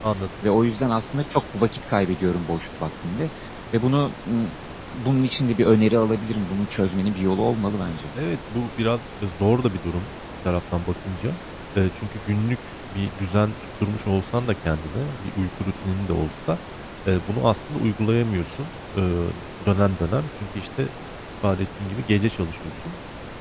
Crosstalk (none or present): none